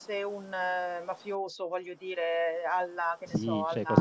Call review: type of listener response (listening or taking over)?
taking over